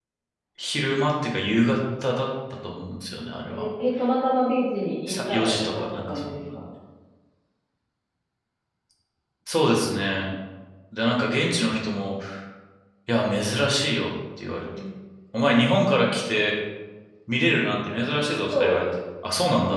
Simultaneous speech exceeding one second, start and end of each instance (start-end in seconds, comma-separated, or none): 5.1-6.6